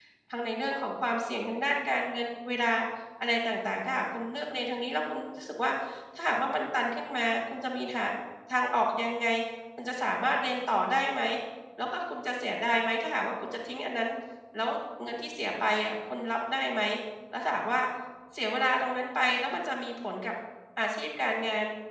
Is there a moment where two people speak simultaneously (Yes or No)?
No